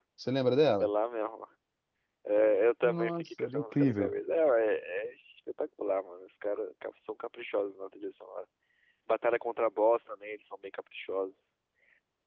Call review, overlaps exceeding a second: present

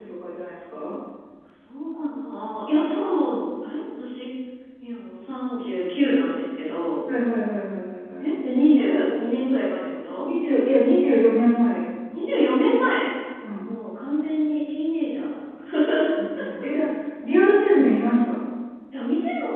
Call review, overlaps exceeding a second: none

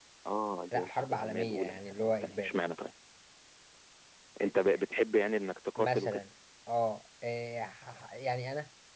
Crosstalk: present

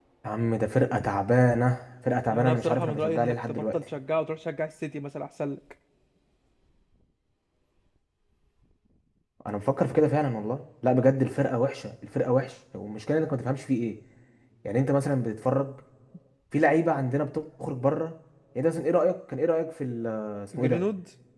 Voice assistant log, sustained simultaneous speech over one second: present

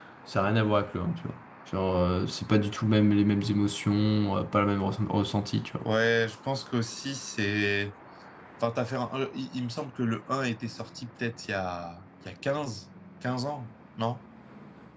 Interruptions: none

